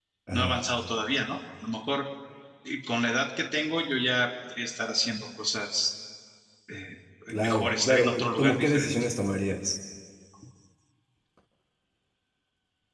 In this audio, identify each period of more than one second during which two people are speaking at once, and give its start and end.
7.4-8.9

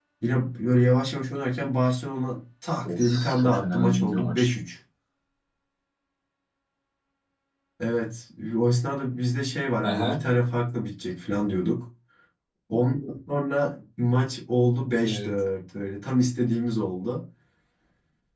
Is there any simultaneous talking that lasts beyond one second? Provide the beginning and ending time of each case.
2.8-4.5

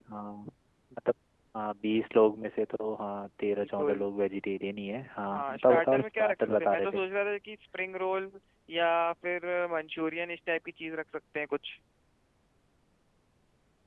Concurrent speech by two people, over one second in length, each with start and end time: 5.3-7.0

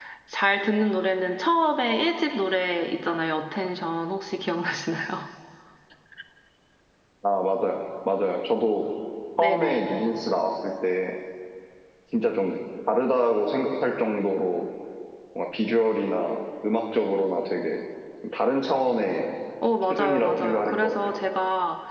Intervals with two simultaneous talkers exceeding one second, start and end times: 19.9-21.1

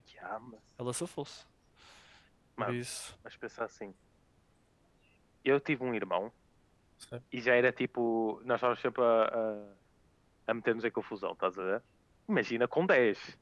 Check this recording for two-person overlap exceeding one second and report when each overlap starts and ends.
none

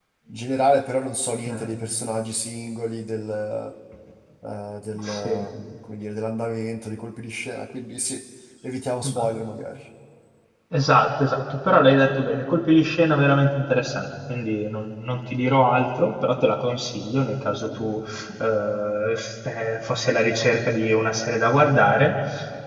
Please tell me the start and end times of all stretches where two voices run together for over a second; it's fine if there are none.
none

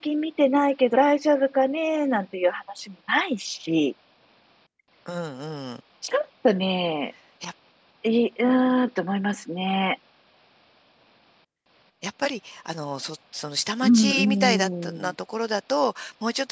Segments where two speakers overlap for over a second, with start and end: 13.8-15.1

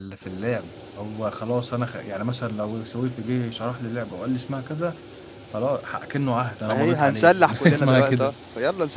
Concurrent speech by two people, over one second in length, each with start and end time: 6.7-8.3

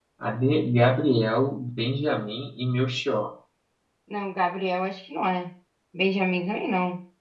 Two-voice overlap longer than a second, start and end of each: none

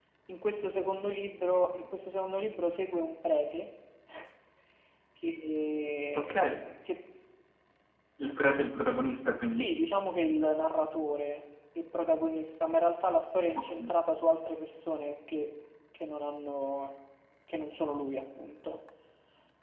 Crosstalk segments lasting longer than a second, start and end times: none

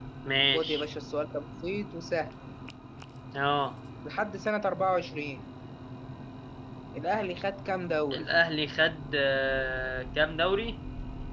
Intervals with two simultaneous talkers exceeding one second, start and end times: none

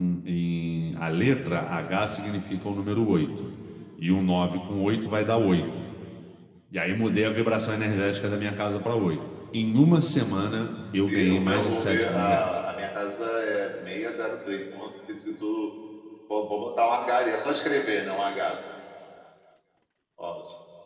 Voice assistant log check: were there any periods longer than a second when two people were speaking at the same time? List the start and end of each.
11.1-12.5

